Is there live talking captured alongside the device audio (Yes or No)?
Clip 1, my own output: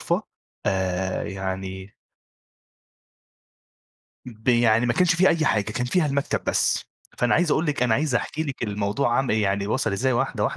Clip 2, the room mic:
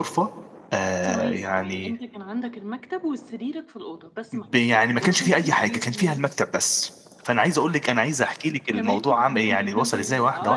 Yes